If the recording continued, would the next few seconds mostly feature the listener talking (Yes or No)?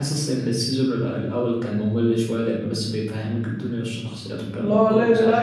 Yes